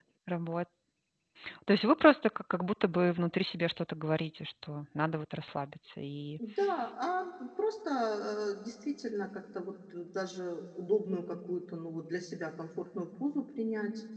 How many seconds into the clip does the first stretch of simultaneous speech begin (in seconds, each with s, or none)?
none